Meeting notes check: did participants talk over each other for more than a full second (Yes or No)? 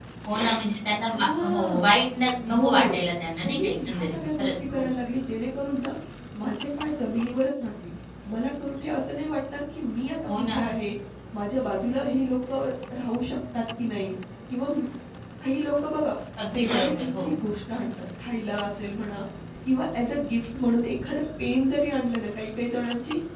Yes